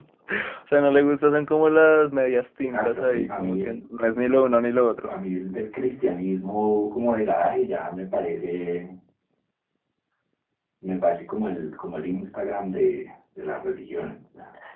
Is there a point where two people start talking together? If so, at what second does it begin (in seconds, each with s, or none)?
2.6 s